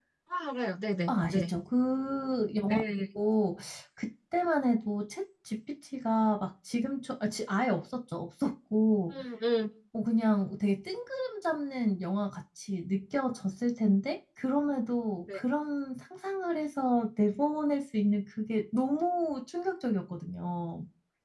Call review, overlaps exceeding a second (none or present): none